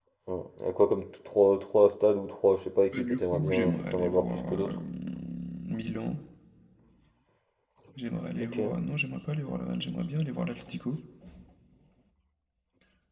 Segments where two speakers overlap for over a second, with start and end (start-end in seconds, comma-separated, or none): 2.9-4.7